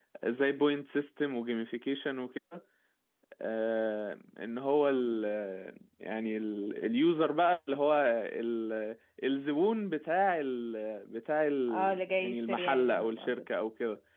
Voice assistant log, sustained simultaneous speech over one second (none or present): present